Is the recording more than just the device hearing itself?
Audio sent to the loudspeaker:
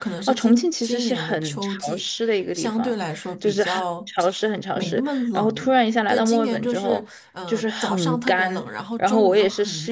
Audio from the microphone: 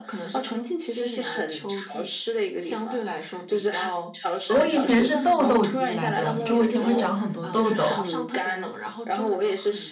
Yes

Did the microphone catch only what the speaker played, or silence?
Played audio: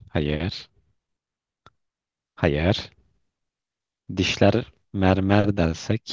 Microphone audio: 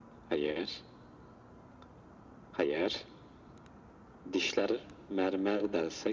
Yes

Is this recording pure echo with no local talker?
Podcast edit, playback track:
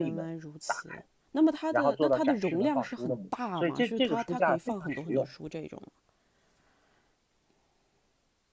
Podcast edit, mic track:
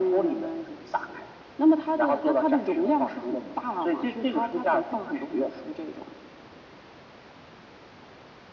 Yes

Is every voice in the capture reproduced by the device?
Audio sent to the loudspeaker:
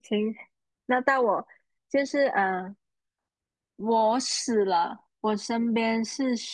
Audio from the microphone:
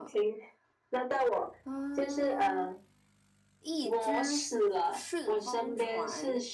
No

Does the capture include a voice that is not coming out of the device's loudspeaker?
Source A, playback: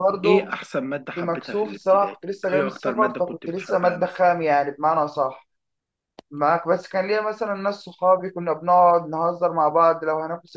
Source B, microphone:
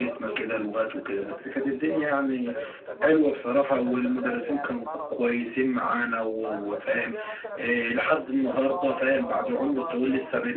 Yes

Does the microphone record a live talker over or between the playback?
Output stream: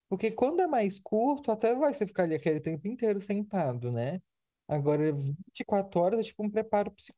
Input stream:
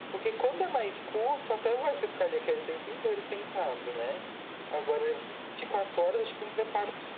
No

